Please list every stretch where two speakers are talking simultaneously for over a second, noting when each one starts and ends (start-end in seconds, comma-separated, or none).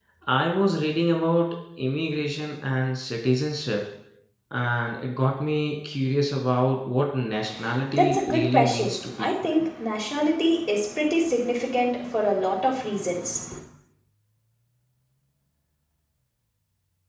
8.0-9.3